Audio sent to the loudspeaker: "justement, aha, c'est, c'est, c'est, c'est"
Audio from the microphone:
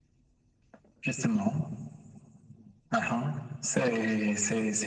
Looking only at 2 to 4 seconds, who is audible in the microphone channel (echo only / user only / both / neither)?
echo only